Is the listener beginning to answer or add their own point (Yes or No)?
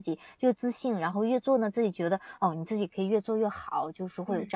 No